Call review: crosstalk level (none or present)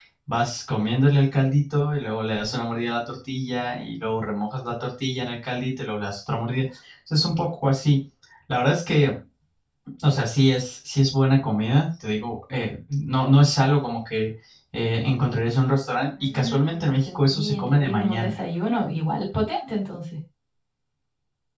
present